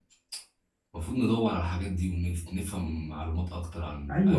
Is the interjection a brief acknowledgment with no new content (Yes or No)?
No